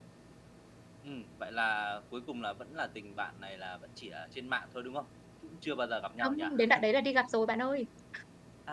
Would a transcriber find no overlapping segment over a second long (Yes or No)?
Yes